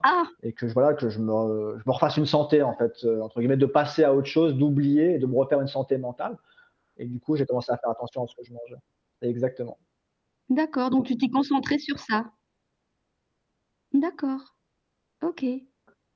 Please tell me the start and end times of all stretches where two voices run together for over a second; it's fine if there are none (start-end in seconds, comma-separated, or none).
none